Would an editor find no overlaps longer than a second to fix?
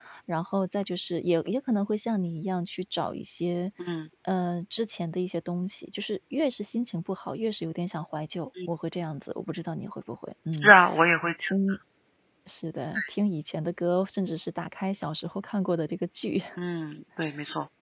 Yes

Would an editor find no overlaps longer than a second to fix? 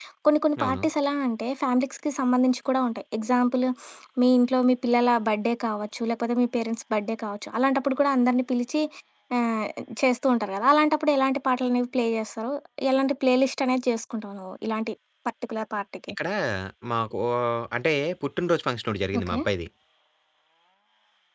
Yes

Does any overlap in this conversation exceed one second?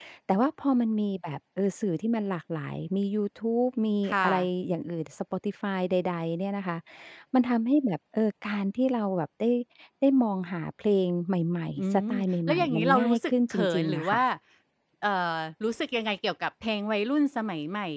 Yes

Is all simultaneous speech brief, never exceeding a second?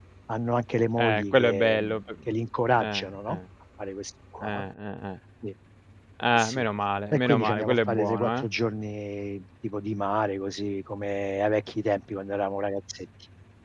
No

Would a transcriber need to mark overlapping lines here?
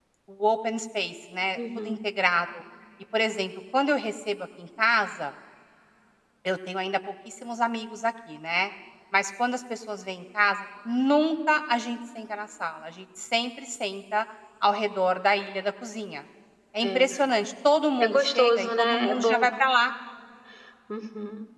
Yes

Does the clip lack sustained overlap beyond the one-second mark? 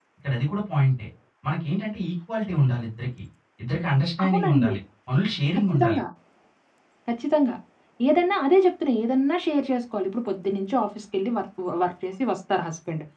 Yes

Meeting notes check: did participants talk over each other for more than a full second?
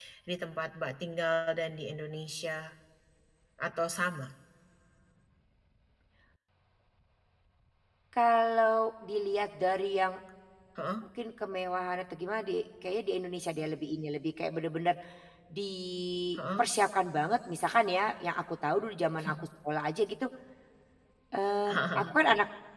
No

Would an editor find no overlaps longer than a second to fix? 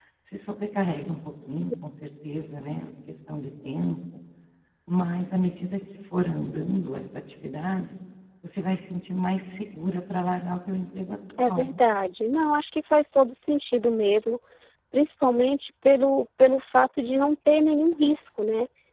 Yes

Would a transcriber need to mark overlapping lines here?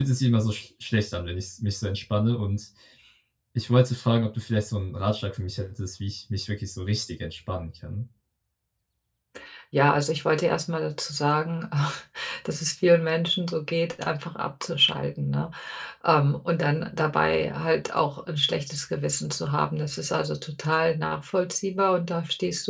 No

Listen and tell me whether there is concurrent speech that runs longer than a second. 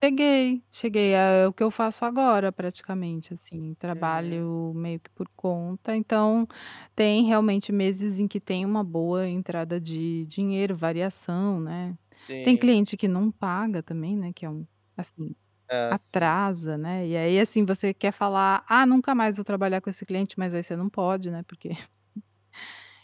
No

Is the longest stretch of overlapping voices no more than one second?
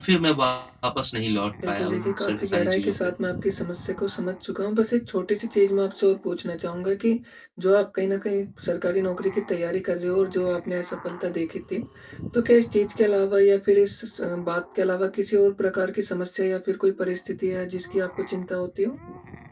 No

